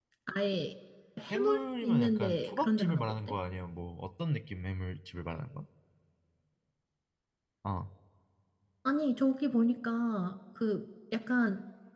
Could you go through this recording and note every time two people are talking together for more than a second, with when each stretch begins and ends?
1.3-3.2

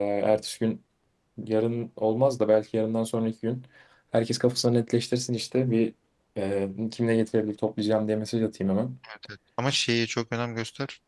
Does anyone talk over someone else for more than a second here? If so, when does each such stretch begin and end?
none

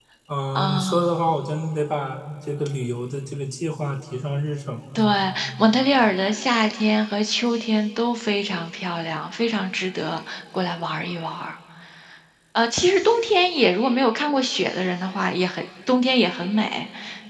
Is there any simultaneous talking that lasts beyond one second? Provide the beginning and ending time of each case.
none

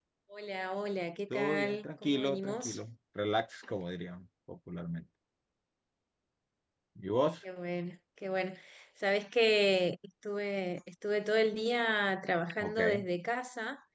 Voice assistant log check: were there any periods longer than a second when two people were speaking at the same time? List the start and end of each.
1.3-2.8

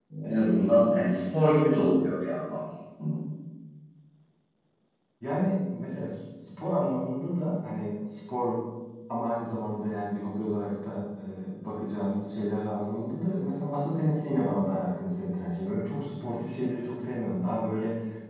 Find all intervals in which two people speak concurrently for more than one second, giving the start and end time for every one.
none

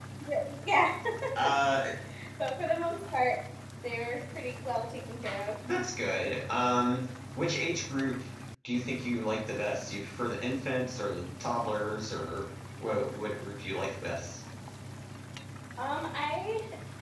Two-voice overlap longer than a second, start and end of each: none

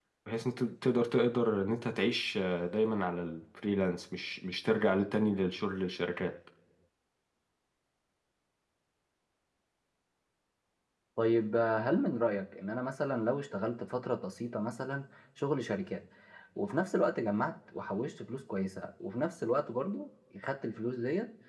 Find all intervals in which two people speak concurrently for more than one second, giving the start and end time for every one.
none

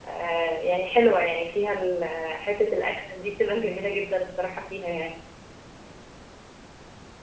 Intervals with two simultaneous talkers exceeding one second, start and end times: none

